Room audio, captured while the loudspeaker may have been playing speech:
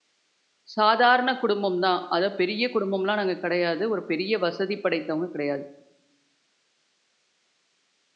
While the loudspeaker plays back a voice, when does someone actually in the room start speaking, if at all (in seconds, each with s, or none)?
0.8 s